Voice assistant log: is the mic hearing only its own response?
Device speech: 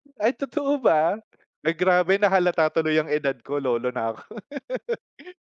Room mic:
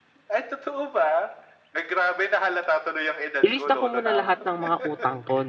No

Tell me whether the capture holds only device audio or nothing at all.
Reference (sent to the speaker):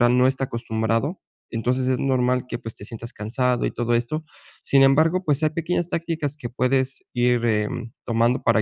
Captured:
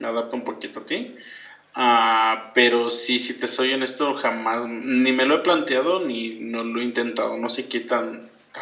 No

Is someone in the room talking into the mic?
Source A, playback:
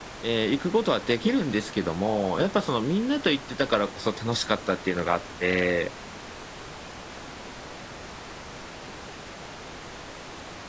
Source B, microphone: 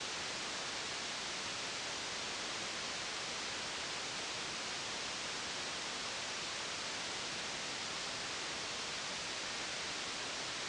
No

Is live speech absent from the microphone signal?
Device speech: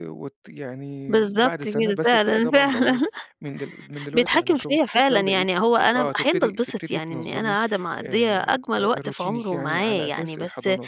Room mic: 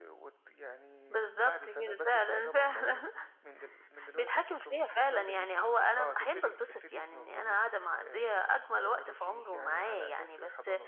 Yes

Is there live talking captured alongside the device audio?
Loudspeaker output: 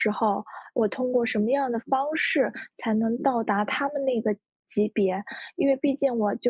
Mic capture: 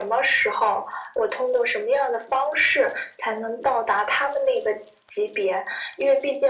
No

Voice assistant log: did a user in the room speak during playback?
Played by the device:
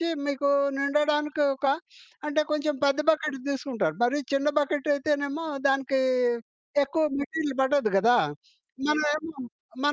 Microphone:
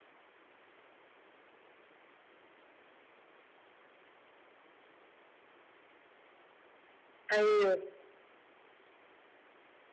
Yes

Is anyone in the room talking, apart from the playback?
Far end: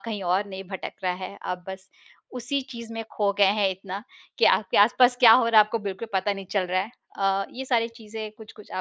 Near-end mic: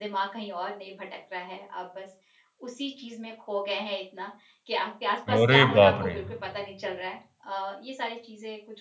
Yes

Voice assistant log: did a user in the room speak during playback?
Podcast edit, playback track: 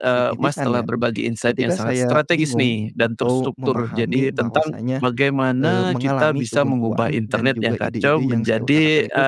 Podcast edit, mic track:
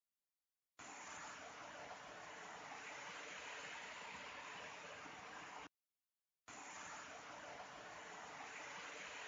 No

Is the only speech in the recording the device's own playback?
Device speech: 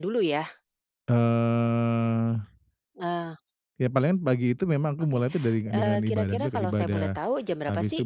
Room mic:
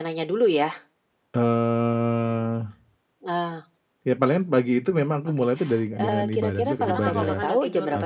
No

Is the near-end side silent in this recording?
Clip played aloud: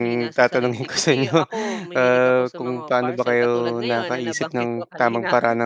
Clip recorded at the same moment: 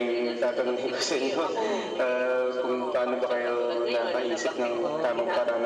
No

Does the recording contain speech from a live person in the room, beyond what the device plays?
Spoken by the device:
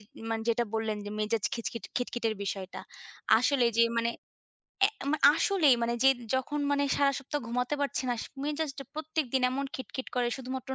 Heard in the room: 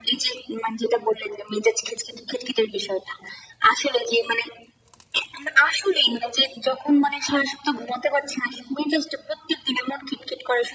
No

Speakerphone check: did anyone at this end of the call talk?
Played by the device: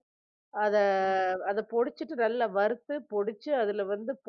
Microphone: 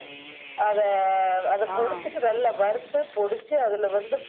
Yes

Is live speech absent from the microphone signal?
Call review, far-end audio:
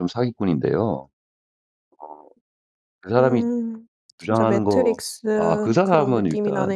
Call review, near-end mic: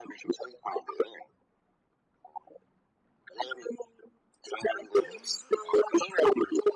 Yes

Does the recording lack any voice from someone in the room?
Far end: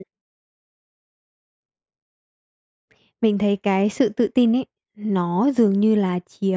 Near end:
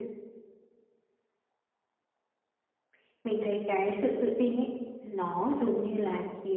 Yes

